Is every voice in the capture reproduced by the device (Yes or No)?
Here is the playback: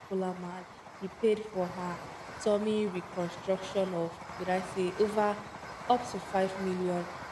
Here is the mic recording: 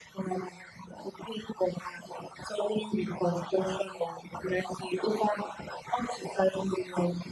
Yes